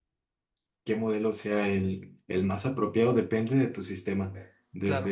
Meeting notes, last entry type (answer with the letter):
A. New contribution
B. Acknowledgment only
B